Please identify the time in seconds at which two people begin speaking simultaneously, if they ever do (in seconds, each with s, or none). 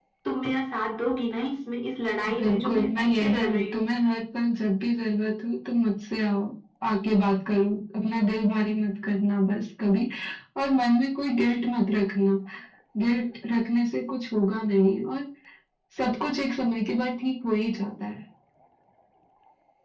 2.3 s